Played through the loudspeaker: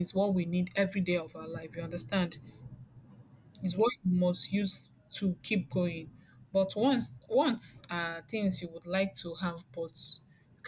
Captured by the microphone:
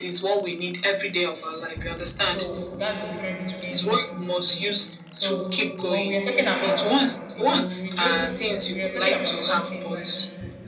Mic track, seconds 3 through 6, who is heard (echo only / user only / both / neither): both